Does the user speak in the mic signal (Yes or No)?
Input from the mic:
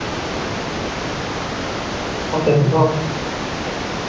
Yes